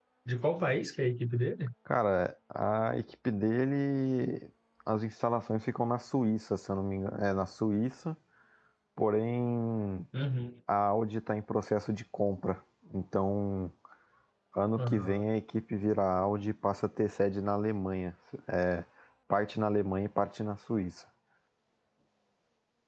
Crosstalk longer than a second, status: none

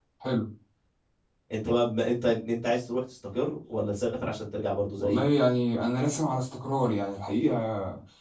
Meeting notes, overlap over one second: none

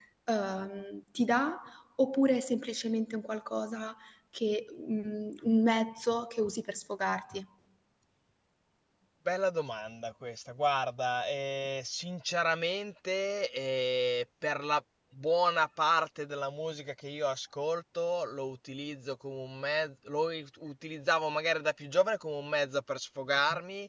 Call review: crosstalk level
none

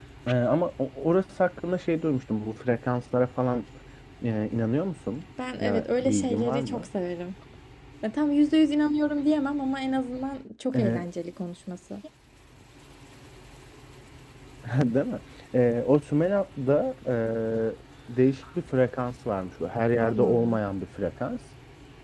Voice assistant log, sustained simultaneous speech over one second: present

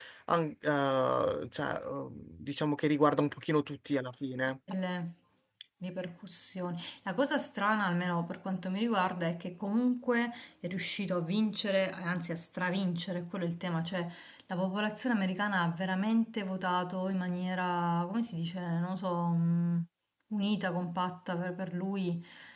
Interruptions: none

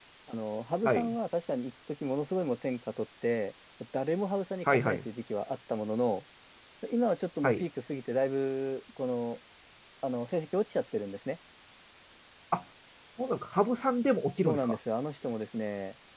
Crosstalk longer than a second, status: none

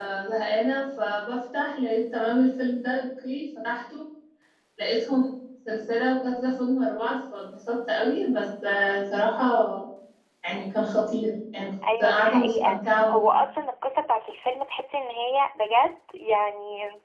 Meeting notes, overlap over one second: present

